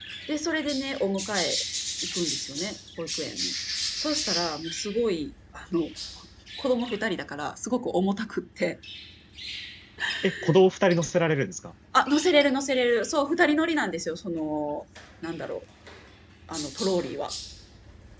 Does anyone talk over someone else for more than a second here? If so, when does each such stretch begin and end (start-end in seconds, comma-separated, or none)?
none